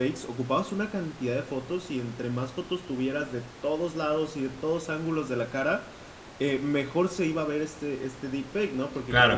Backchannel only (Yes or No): Yes